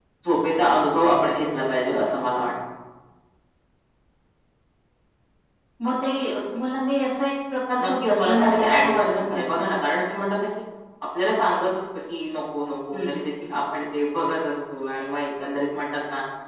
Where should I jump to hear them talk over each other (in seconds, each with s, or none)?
7.8 s